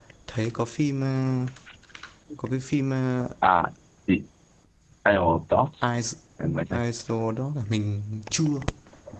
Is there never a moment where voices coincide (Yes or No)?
Yes